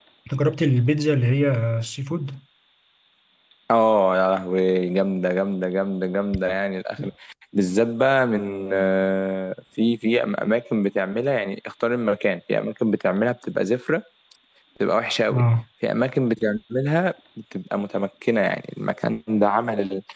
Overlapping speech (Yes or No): No